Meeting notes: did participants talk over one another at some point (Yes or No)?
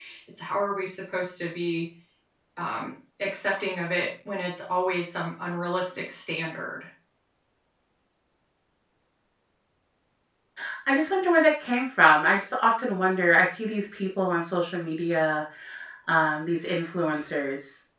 No